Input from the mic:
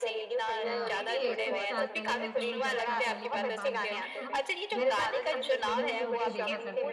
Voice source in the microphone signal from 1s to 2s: both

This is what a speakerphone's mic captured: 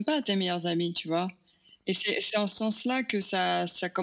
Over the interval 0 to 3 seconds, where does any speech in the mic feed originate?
echo only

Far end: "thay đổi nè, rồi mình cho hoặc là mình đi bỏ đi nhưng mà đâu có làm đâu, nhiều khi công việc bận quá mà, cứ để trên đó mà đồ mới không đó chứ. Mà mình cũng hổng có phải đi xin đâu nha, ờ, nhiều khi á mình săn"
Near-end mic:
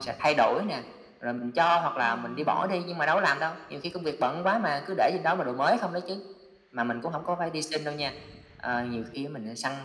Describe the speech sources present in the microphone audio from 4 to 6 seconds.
echo only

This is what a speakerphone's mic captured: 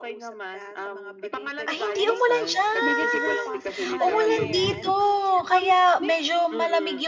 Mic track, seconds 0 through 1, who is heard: echo only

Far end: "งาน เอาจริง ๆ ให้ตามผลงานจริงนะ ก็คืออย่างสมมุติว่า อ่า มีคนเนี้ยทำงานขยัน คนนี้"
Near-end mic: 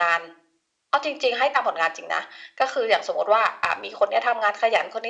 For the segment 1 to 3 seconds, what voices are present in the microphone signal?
echo only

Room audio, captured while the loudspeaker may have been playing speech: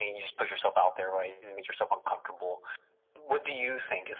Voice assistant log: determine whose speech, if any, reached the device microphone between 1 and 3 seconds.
echo only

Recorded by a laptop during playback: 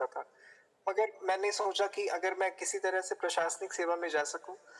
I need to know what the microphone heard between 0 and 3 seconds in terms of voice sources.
echo only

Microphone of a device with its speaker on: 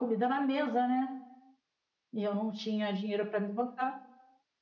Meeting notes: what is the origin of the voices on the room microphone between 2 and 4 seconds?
echo only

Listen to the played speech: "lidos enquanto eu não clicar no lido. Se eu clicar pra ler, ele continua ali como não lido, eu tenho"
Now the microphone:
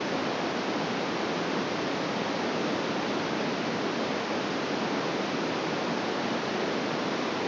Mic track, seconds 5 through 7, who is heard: neither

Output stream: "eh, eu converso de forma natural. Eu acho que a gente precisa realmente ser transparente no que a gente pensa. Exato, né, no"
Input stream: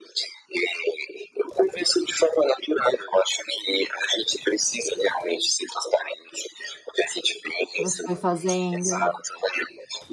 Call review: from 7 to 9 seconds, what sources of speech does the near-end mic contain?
both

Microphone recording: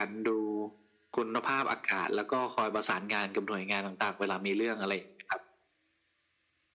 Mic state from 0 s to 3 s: echo only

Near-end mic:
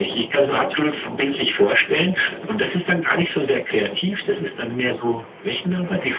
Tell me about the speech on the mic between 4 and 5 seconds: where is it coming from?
echo only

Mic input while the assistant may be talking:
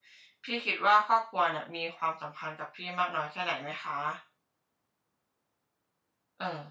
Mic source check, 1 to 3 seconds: user only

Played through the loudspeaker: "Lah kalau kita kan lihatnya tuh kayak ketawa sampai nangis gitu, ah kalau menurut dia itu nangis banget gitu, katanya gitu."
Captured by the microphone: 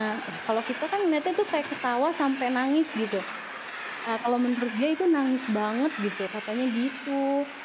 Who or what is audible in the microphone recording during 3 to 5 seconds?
echo only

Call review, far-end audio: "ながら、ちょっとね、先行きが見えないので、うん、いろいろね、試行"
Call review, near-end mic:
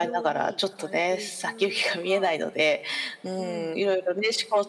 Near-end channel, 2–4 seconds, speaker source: both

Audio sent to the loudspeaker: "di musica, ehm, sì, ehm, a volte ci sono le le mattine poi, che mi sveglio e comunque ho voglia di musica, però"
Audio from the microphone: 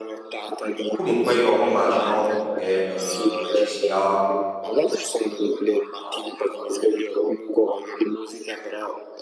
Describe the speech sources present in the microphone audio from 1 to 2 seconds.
both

